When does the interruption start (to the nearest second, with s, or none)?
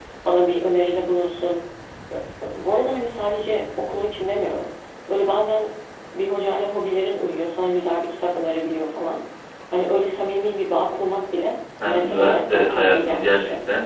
12 s